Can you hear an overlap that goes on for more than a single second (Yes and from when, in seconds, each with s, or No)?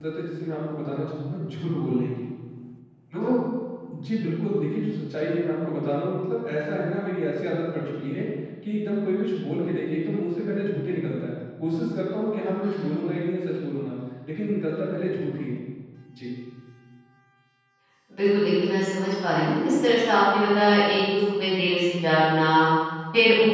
No